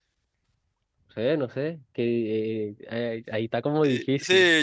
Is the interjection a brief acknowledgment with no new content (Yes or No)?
No